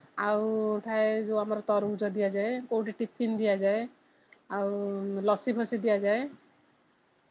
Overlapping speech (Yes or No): No